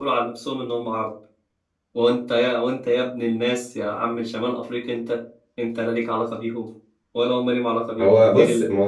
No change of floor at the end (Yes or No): No